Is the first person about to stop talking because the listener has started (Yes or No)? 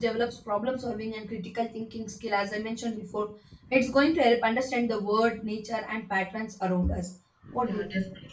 Yes